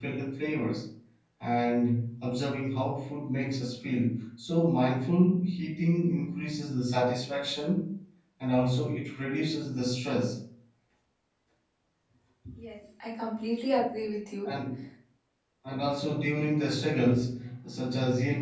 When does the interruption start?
none

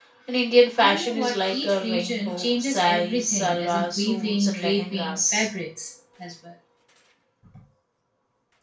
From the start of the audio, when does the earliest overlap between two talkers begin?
0.8 s

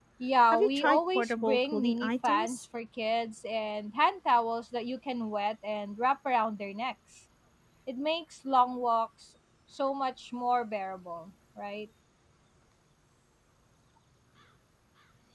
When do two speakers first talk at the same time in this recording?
0.5 s

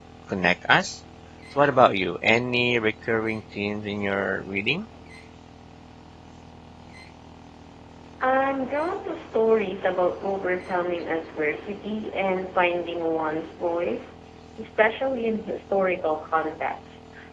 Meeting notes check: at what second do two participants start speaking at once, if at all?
none

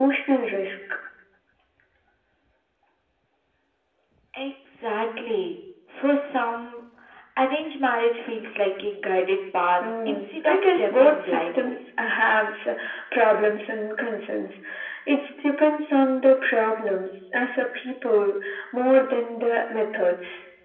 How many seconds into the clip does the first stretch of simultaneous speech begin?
10.1 s

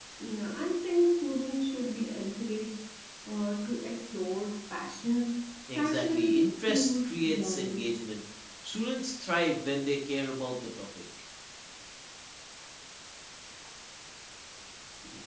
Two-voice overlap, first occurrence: 5.8 s

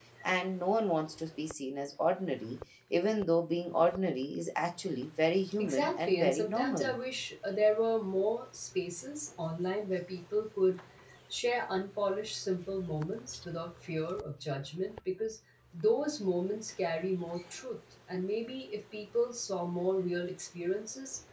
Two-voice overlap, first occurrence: 5.6 s

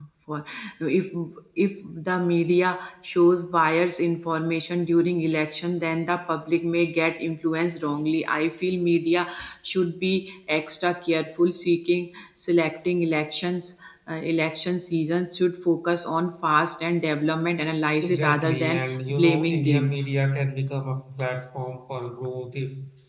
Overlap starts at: 18.0 s

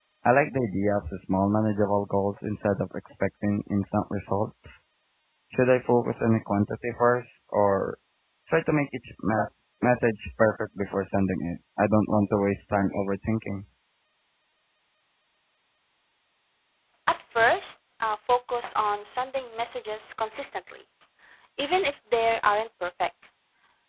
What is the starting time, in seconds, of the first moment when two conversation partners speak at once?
none

